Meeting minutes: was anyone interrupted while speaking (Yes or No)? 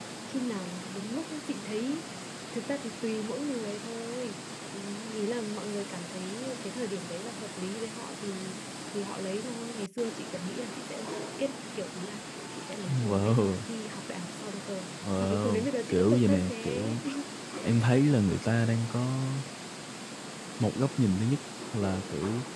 Yes